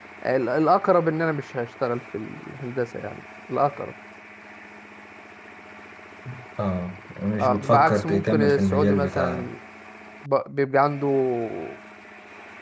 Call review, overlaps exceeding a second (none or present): present